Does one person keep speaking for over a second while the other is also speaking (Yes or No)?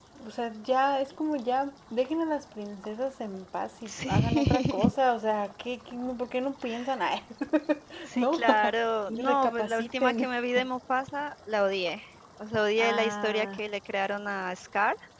Yes